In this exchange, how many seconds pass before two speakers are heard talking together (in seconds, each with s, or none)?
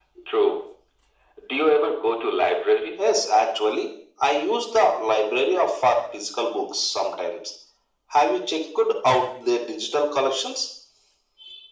none